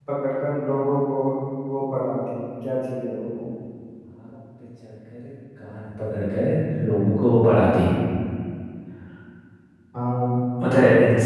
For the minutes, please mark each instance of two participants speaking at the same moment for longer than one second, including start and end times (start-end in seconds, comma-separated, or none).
none